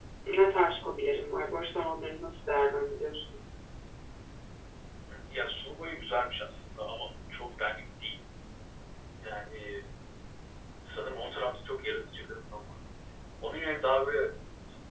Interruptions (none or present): none